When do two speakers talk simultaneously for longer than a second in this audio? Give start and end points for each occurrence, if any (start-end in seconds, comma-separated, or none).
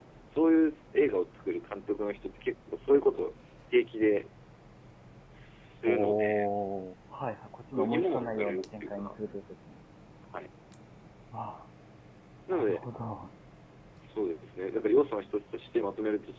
7.8-9.1